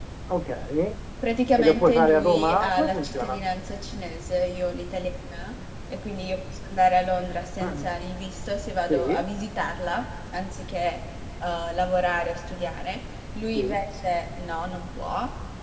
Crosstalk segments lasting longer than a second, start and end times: 1.6-3.4

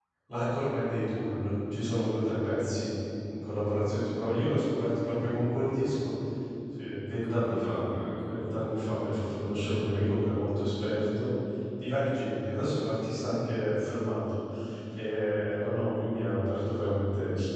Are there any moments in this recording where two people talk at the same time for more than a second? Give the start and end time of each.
none

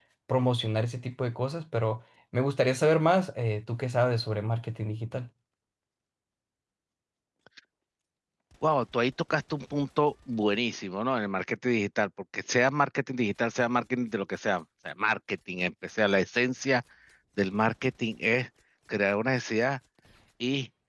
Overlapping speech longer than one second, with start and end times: none

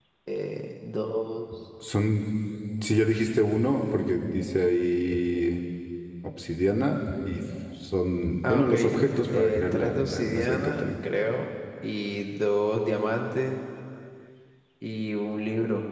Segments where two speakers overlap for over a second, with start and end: 9.3-10.9

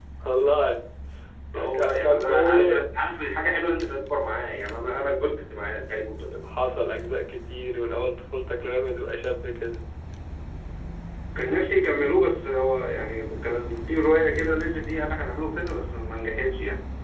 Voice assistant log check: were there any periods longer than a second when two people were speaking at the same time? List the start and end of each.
1.6-2.8

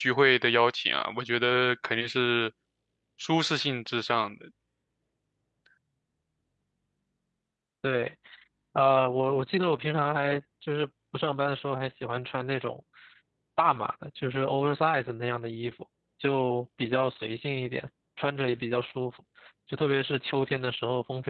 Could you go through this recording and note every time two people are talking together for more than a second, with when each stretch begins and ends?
none

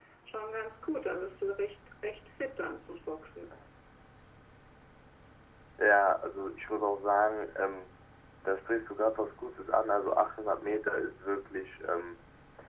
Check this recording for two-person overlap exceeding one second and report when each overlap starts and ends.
none

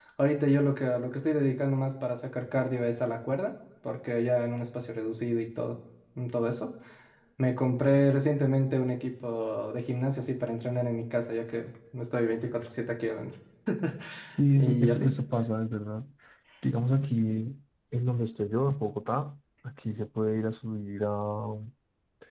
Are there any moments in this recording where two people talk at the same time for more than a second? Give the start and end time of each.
none

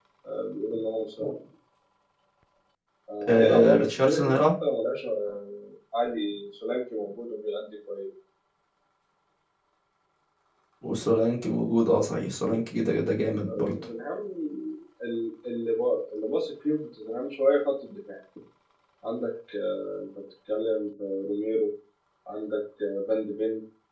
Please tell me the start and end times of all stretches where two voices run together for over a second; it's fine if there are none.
3.3-4.5

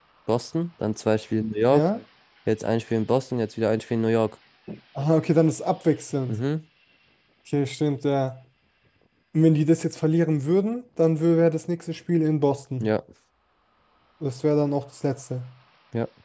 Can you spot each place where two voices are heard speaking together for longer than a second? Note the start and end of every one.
none

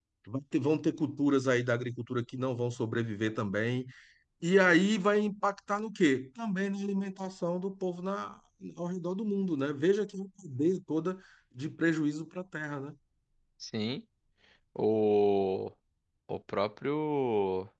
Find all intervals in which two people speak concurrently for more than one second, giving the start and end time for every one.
none

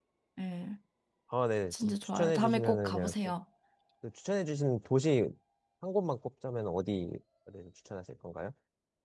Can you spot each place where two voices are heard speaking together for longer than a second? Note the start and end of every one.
1.7-3.1

